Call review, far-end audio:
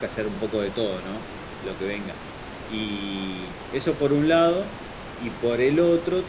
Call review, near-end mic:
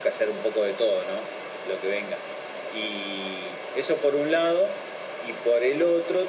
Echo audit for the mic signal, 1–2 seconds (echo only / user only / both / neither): echo only